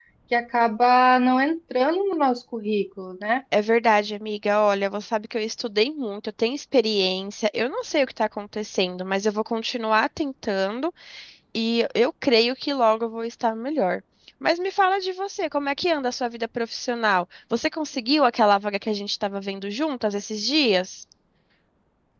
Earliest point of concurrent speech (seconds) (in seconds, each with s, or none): none